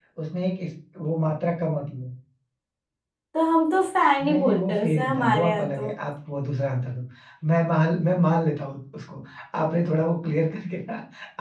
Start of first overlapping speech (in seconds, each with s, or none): 4.2 s